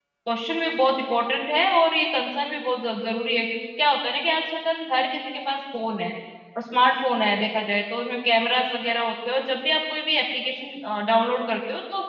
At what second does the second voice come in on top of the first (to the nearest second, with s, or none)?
none